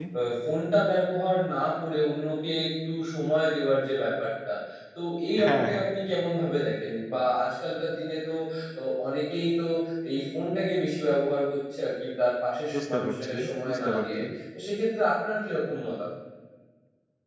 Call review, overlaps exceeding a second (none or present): present